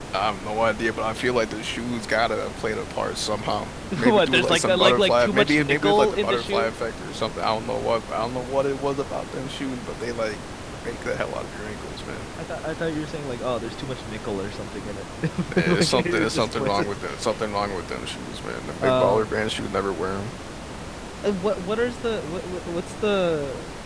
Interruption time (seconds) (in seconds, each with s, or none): 4.0 s